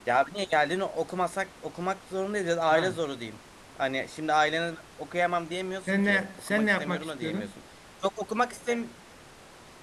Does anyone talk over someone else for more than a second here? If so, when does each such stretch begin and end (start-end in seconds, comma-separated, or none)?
5.9-7.5